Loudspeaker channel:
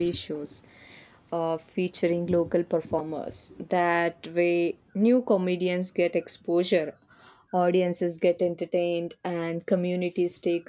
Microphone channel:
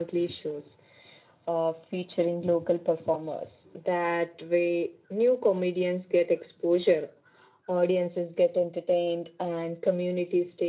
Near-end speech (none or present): none